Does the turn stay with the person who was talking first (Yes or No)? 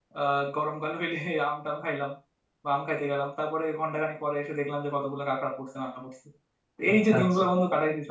Yes